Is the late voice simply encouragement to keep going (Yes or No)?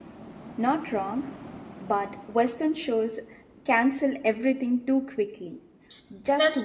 Yes